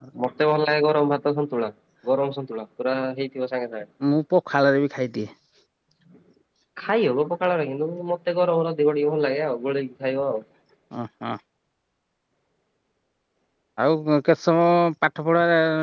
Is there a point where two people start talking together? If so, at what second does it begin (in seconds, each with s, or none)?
none